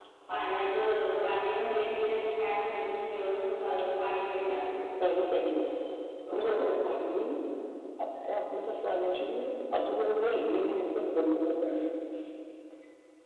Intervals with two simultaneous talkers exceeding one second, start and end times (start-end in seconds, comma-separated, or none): none